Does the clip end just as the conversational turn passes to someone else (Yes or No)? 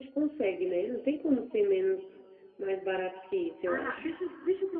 Yes